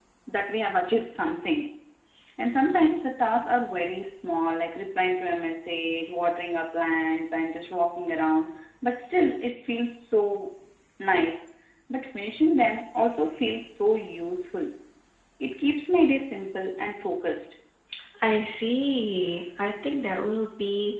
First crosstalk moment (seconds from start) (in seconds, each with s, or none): none